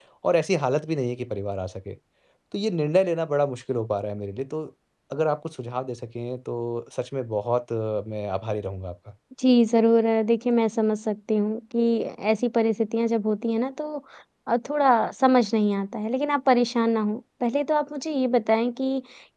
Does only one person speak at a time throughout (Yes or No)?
Yes